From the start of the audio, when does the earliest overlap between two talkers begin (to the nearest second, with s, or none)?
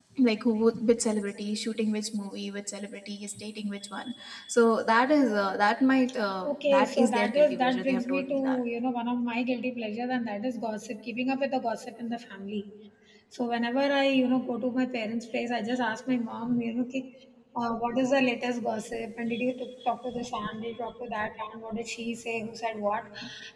6 s